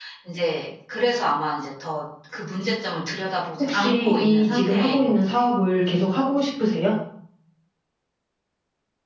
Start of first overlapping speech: 4 s

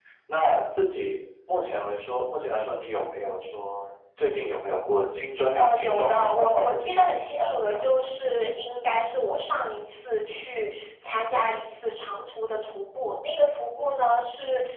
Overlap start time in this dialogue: 6 s

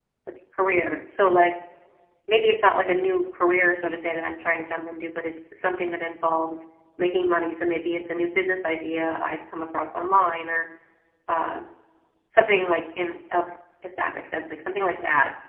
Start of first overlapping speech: none

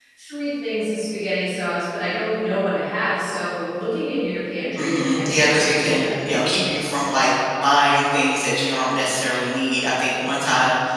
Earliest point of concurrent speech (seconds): 5 s

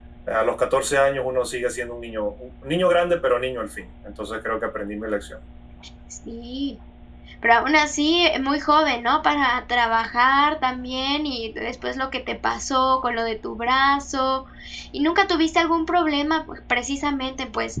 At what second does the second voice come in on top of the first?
none

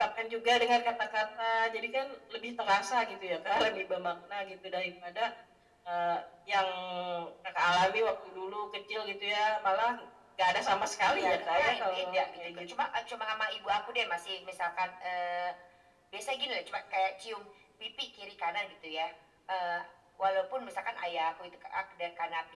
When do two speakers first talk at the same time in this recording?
11 s

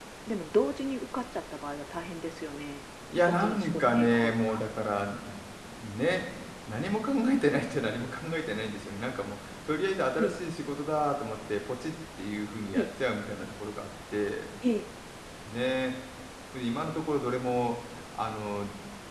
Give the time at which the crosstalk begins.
3 s

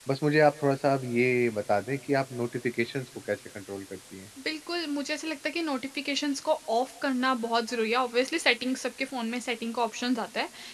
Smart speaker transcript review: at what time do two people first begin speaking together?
none

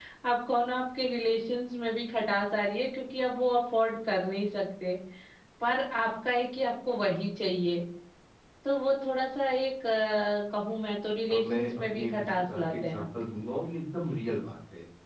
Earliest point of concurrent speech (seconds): 11 s

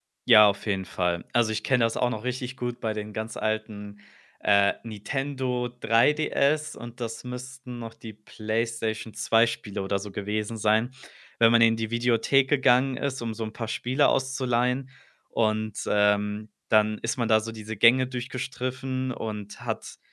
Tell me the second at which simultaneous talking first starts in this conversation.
none

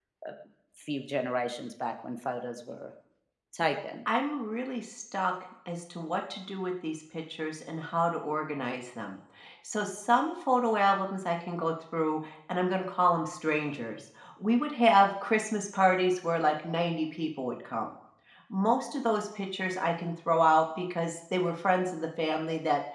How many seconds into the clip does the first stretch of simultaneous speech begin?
none

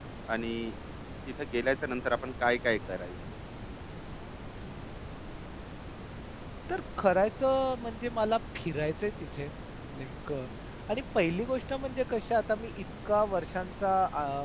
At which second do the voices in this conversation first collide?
none

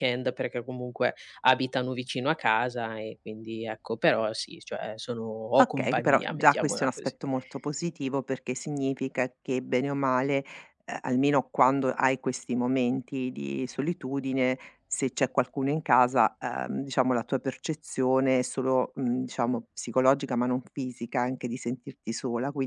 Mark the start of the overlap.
6 s

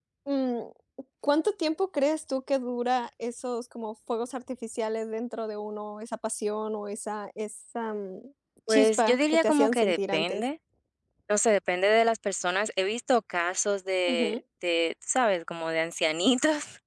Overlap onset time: 9 s

